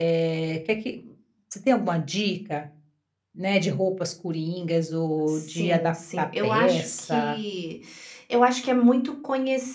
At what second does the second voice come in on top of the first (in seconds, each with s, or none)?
5.3 s